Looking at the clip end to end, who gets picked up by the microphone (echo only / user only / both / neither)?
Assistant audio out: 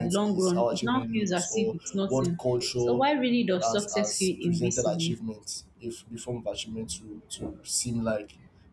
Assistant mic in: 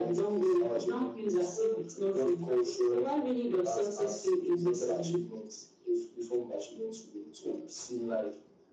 echo only